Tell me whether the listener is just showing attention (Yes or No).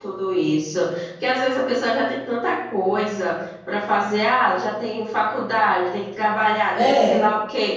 Yes